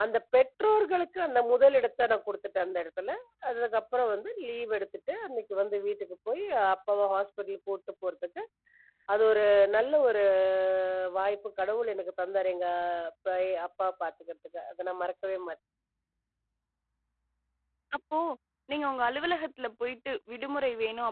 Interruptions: none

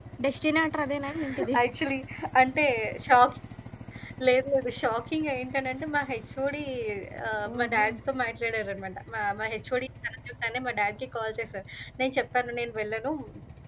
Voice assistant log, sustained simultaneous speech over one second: none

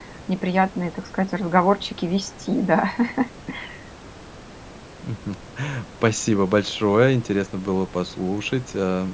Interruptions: none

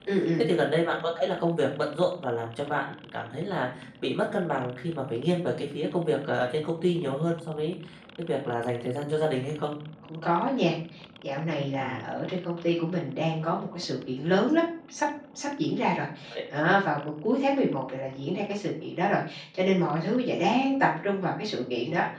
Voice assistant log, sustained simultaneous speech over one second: none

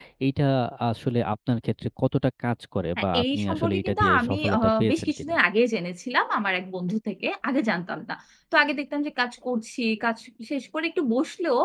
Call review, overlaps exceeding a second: present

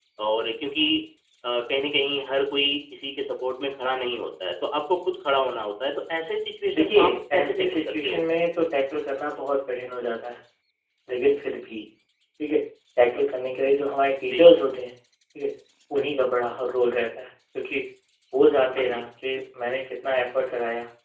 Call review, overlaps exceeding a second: present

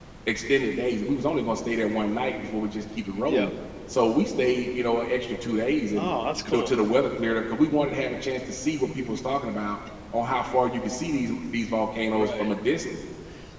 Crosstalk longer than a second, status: none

